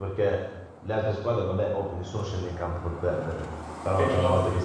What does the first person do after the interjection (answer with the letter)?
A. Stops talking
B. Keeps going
B